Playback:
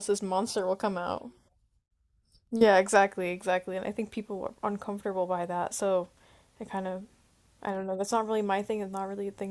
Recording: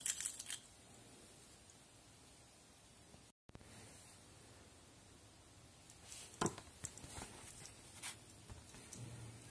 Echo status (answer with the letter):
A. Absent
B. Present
A